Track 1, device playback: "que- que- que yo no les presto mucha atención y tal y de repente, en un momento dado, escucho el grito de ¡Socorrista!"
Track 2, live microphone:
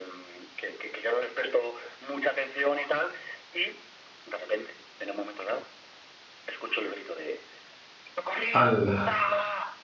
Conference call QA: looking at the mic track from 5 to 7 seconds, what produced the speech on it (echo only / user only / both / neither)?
echo only